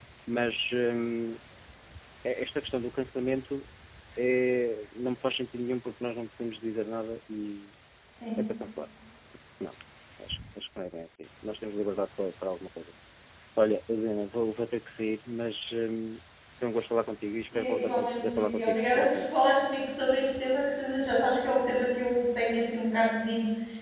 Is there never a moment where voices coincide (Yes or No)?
No